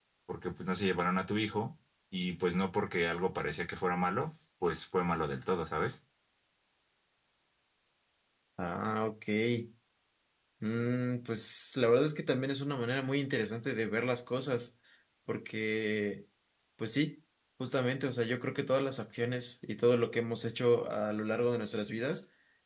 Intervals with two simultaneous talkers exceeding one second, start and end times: none

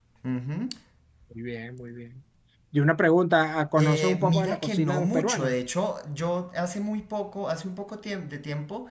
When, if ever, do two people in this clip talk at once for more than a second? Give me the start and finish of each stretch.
3.8-5.6

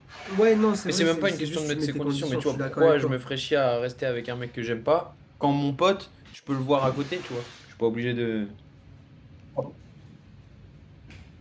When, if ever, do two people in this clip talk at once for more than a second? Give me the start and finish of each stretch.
0.9-3.2

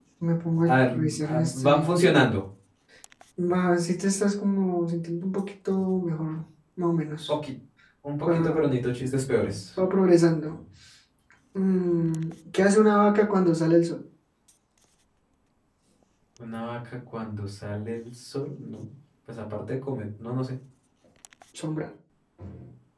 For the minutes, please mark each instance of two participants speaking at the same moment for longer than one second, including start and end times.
0.7-1.9

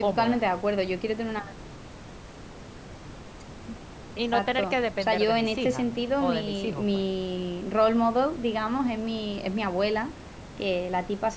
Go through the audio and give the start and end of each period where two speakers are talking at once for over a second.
4.3-6.8

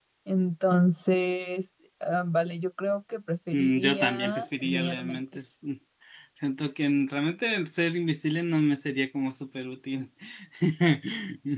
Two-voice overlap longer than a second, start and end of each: 3.5-5.5

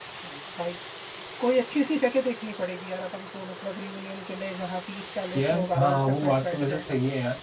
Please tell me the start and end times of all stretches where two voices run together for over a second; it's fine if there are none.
5.3-6.8

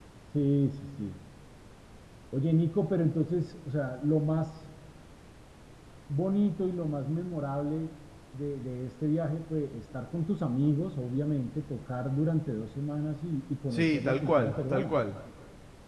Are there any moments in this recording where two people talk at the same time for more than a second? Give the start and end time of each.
13.7-15.0

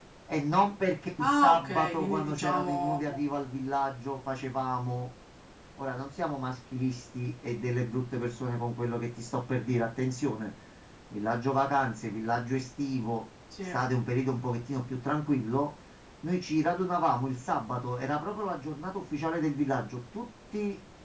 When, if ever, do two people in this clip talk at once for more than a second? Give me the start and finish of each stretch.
1.2-3.0

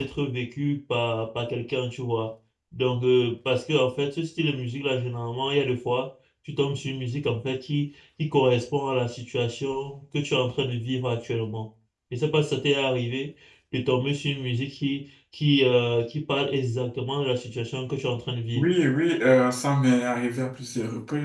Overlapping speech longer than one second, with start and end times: none

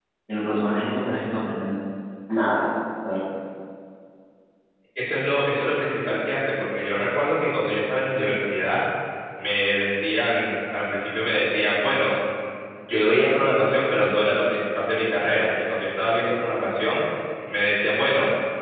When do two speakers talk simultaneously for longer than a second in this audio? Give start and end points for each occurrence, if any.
none

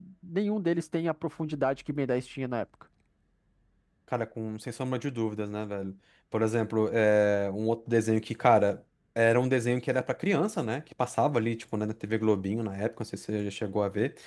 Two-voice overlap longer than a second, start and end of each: none

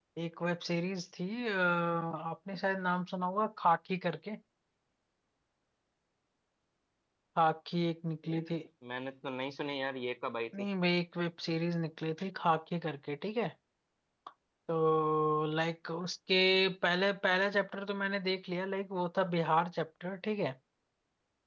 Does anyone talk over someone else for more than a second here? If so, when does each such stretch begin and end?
none

